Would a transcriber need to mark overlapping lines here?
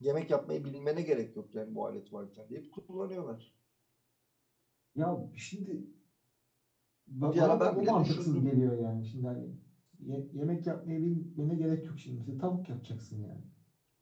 Yes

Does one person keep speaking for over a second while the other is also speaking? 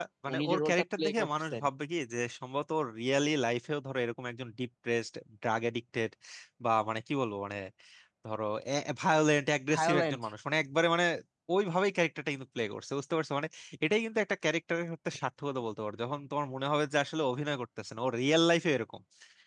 Yes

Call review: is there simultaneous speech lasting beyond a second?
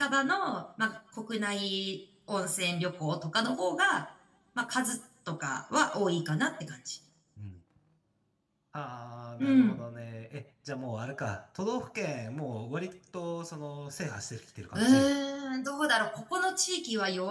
No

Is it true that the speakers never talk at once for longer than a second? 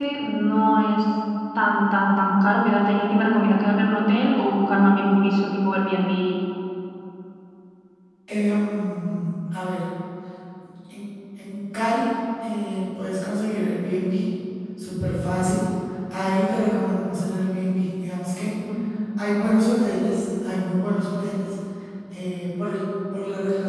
Yes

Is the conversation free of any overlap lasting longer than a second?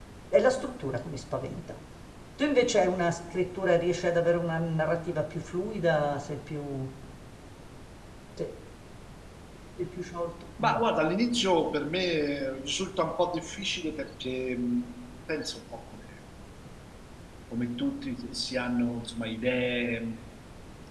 Yes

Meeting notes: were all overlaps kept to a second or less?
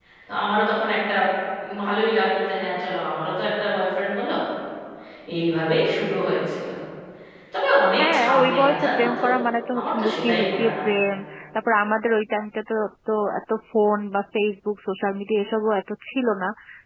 No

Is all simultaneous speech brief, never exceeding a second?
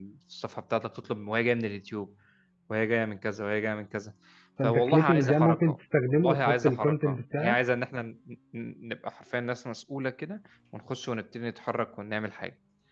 No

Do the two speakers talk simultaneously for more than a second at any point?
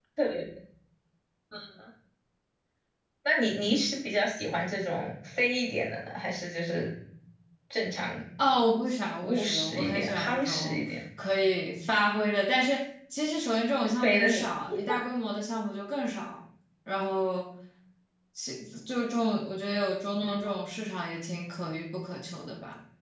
Yes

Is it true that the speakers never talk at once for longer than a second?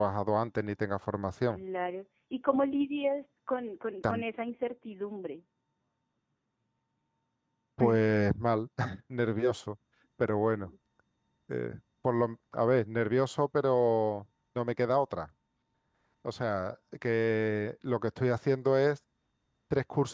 Yes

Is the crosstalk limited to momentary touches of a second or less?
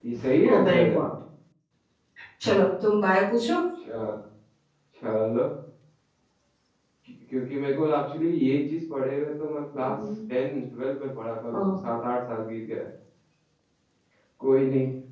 Yes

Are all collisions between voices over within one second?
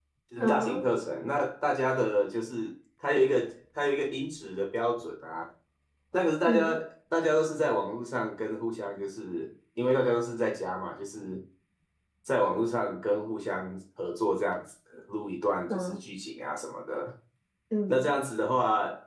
Yes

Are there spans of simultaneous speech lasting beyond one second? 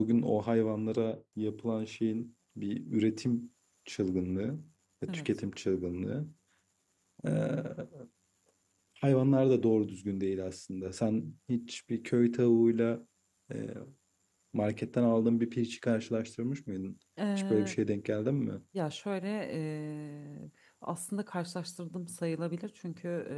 No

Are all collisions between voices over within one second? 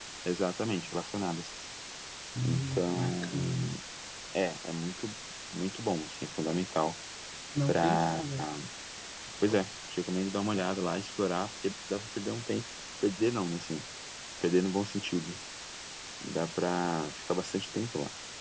No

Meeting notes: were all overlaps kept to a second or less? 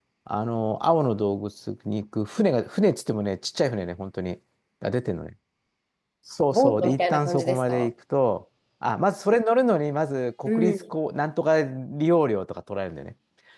No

